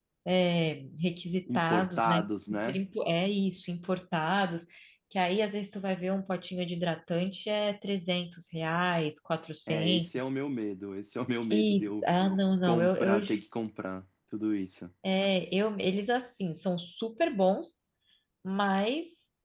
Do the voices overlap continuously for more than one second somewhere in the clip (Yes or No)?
Yes